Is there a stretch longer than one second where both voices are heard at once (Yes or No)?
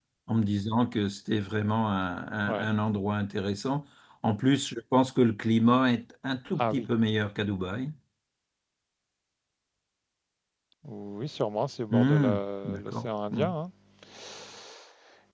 Yes